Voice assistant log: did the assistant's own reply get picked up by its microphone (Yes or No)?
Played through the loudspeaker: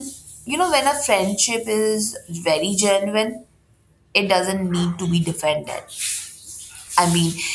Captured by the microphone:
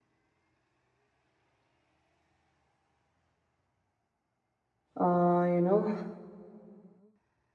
No